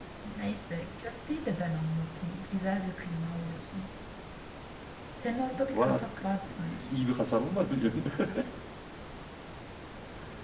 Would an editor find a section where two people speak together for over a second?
No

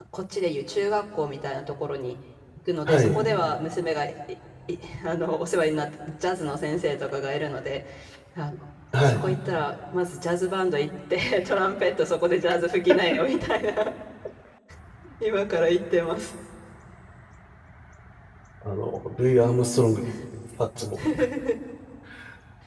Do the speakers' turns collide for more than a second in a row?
No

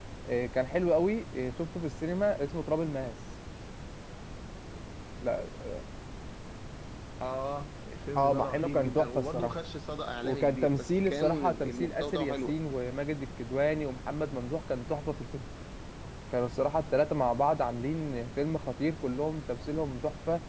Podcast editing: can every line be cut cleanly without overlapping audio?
No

